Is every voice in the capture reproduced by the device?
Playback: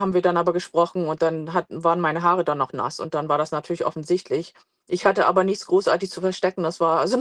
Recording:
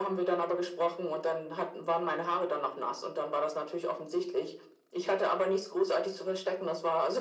Yes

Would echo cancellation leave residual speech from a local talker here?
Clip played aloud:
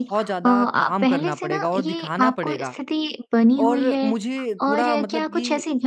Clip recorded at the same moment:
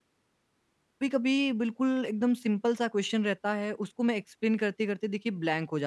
Yes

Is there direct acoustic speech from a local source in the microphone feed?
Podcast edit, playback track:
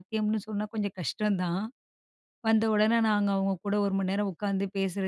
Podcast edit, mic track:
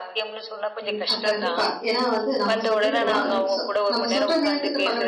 Yes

